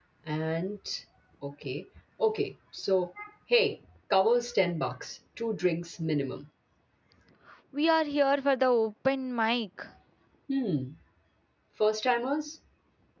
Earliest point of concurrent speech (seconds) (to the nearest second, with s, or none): none